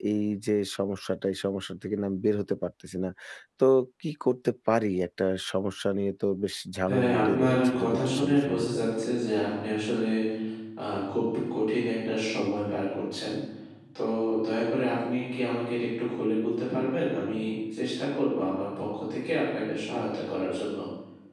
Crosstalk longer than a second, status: present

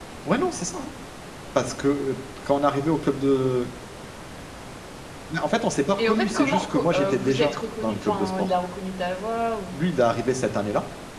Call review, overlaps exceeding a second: present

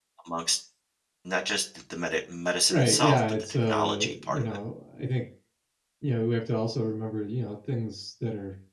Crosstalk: present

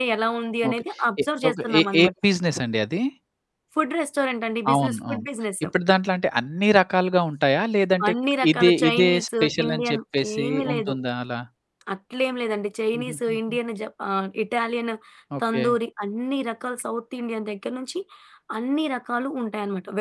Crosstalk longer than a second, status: present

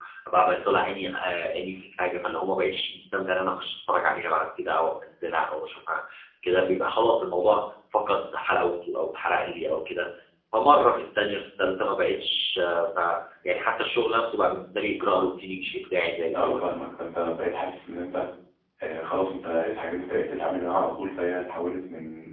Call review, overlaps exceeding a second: none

